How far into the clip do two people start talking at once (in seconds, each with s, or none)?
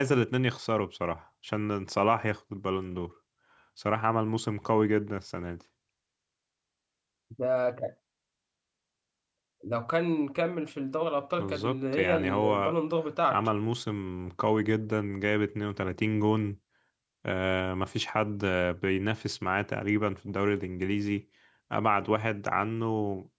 11.4 s